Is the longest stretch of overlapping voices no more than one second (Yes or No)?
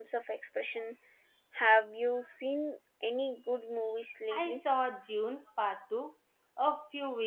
Yes